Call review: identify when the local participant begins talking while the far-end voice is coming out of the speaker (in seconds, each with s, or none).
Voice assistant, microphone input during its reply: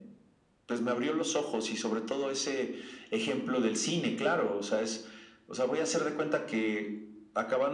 none